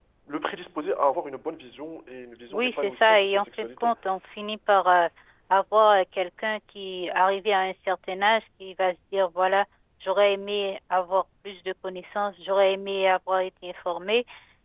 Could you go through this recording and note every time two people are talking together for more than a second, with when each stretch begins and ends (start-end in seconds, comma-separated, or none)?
2.5-3.9